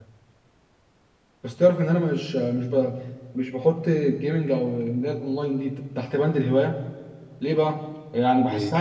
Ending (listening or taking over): listening